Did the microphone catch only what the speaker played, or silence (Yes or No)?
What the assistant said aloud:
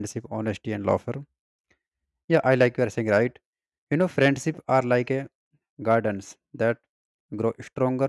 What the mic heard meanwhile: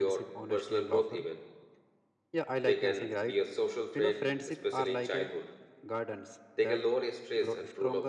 No